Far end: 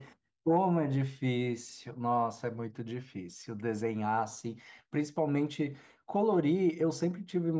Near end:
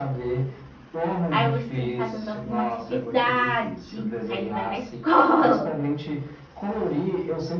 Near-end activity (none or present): present